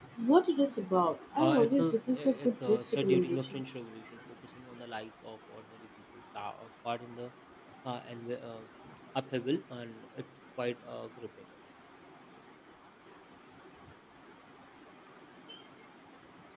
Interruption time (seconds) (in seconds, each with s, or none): 1.4 s